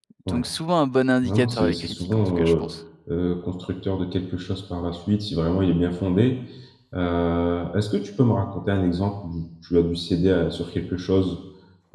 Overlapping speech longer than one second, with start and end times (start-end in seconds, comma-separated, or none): 1.2-2.6